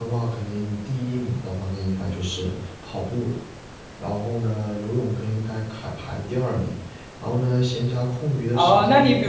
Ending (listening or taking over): taking over